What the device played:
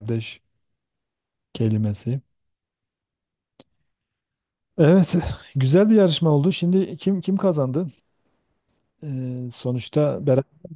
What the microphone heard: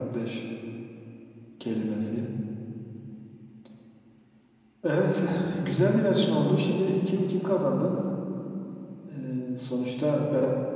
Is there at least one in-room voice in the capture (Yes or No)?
No